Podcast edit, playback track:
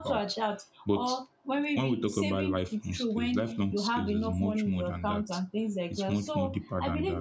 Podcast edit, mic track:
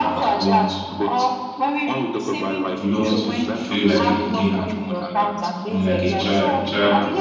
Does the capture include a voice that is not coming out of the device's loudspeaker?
Yes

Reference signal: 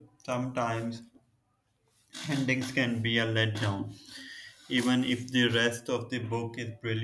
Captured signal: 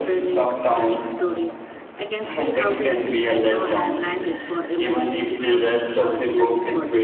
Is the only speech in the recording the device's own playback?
No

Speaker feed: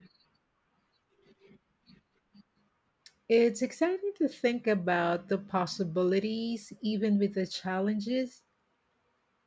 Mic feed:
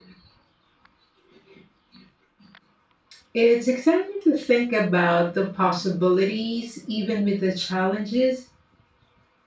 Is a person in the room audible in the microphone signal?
No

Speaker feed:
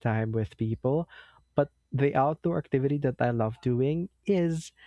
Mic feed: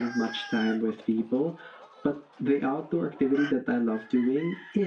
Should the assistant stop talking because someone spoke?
No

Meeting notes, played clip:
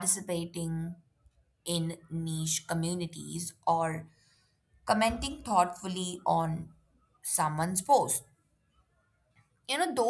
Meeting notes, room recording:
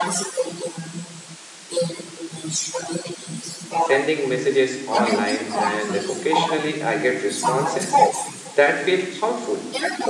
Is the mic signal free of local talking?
No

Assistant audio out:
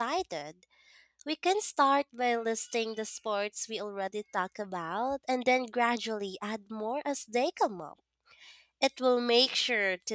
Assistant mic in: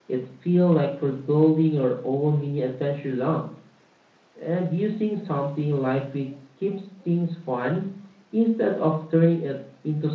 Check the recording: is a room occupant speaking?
Yes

